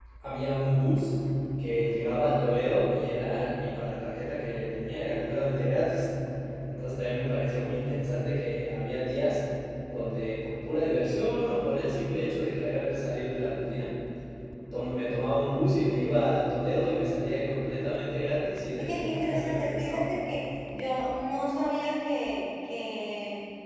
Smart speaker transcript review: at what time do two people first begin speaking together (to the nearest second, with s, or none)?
19 s